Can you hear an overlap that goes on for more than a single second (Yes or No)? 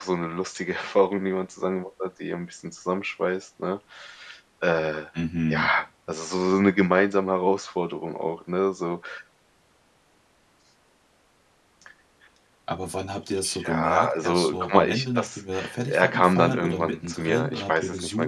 Yes